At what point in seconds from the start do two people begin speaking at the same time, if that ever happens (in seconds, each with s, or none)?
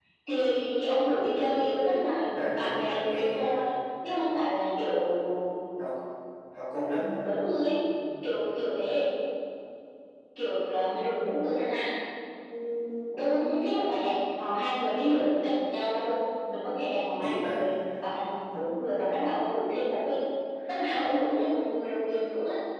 2.3 s